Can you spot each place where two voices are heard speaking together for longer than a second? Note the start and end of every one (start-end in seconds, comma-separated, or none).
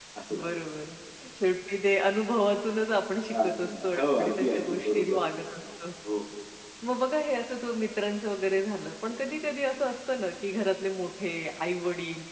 3.3-5.2